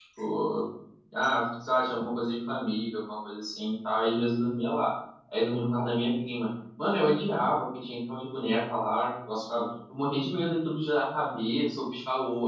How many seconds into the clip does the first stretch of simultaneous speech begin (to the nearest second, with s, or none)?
none